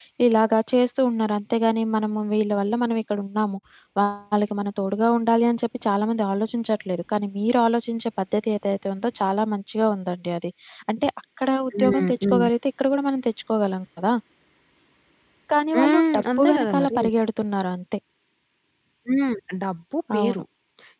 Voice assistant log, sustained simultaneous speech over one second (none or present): present